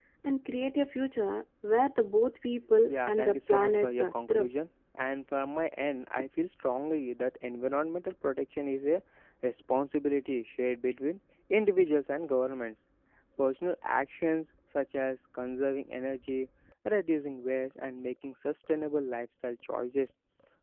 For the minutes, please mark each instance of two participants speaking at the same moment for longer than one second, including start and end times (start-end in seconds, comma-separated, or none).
2.9-4.5